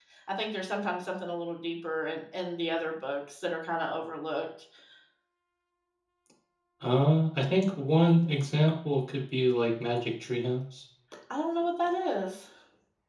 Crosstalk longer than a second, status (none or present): none